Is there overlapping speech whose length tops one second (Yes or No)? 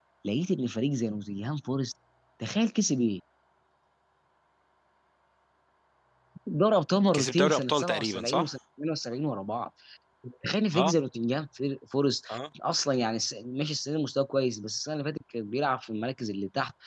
Yes